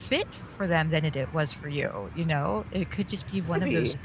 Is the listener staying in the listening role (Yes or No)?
Yes